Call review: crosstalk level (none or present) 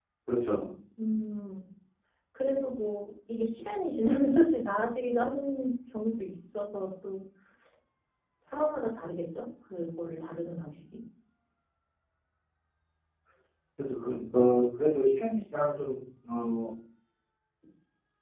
none